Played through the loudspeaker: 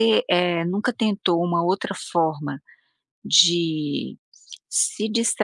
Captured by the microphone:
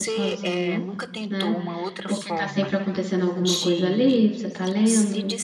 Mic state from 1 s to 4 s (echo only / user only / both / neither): both